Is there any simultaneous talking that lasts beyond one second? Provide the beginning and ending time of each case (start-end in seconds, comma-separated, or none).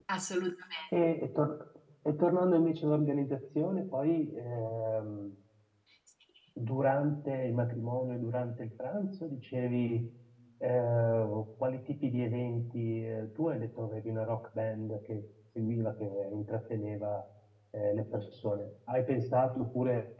none